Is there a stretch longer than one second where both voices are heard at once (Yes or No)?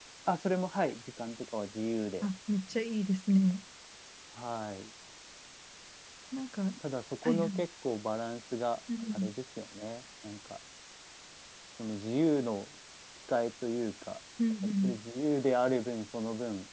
No